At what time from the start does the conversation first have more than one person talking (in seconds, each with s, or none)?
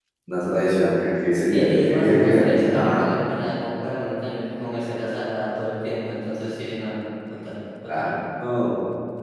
1.5 s